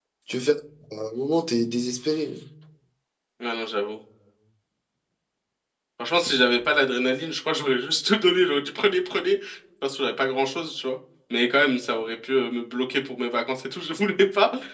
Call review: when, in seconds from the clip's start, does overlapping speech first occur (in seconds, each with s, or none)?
none